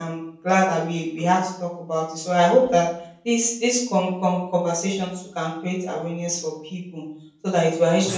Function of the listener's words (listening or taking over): listening